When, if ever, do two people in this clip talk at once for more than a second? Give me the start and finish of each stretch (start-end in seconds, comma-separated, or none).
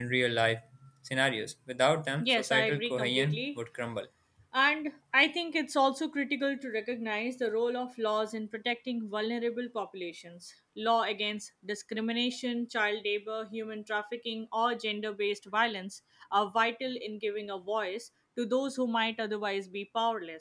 2.2-3.6